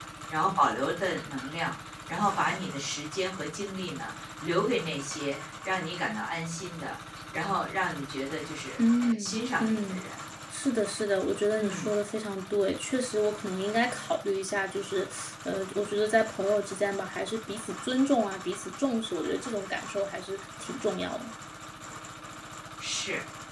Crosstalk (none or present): present